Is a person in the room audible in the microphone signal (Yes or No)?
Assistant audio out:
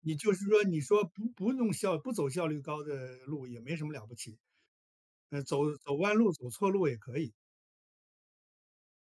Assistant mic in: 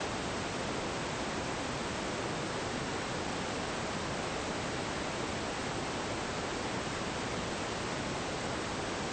No